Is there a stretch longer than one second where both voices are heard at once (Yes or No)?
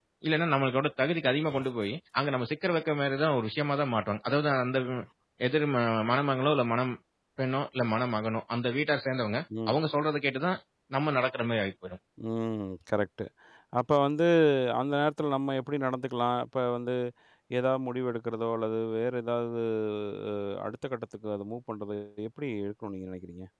No